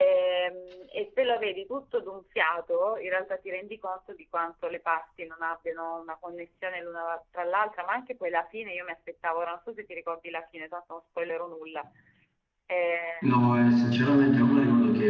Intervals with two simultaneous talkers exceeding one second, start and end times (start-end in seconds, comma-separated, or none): none